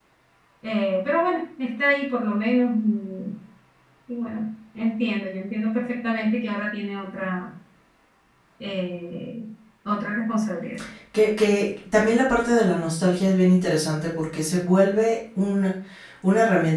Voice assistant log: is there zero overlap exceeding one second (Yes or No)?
Yes